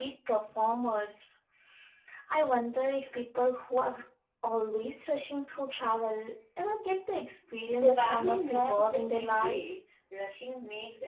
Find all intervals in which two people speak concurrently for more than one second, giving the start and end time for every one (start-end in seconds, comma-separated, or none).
7.8-9.6